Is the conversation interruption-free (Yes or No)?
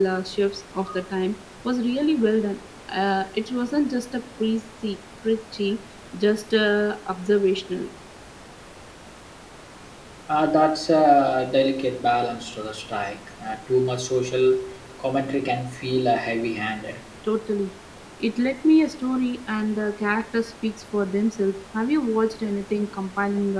Yes